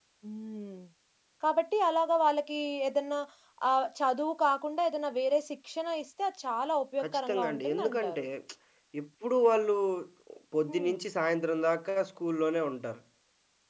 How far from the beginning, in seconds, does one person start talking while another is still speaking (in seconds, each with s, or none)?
7.0 s